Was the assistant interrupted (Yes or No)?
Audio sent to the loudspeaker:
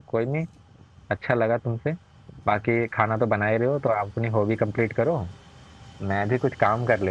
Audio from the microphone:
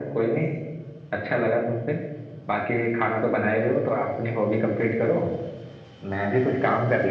No